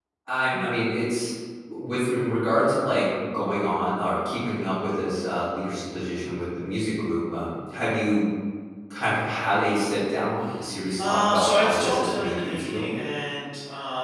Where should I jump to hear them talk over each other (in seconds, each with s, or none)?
11.0 s